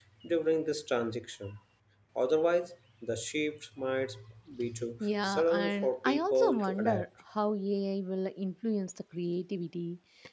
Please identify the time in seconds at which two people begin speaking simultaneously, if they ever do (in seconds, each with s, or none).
5.2 s